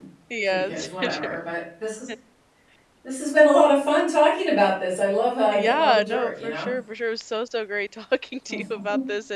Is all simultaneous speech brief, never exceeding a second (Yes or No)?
No